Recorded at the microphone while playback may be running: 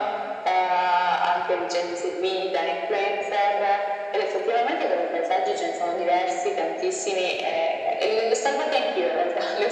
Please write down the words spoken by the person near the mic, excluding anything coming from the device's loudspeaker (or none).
none